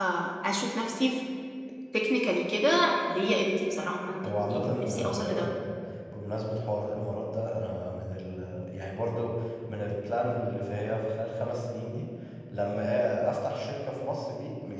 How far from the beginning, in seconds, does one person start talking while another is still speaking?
4.2 s

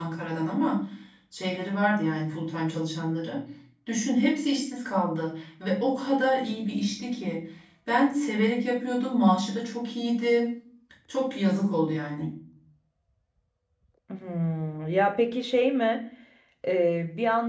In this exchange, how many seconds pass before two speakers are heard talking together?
none

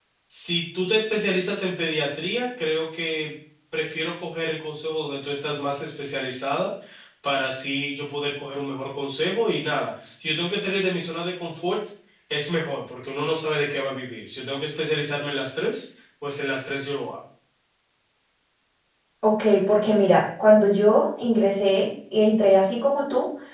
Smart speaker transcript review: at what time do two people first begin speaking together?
none

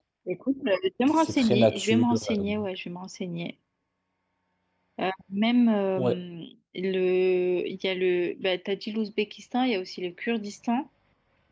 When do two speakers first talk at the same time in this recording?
1.2 s

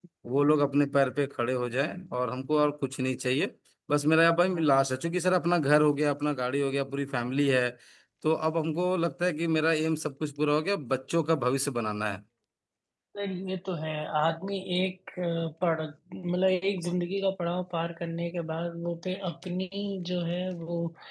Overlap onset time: none

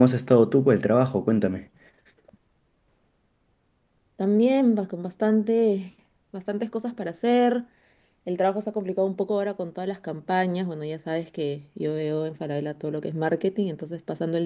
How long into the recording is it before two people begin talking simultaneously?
none

